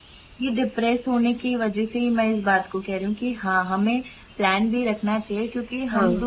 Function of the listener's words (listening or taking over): listening